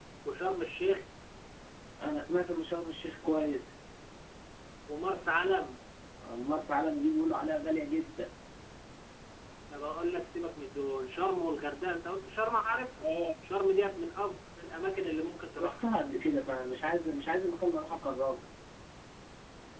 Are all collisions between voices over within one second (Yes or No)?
Yes